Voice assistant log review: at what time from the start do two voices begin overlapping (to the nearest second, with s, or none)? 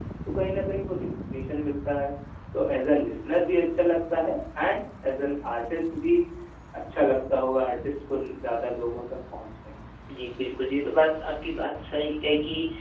none